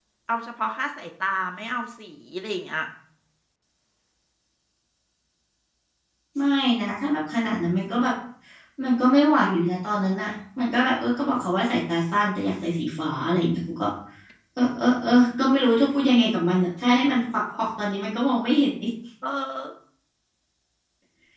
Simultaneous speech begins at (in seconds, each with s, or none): none